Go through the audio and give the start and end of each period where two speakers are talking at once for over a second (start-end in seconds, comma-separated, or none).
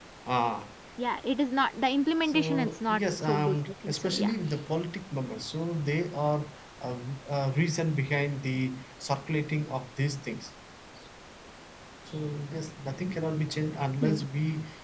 2.2-4.3